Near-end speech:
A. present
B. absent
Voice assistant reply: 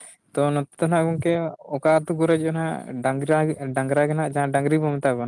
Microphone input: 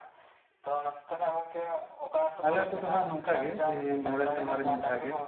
A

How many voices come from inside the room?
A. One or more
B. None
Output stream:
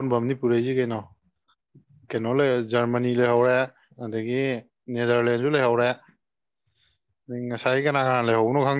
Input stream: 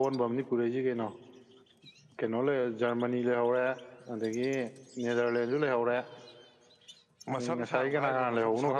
A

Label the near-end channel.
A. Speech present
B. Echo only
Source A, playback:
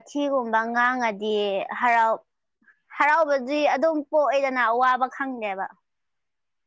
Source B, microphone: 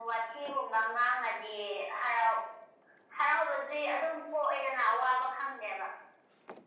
B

